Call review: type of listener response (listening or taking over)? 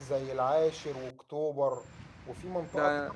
listening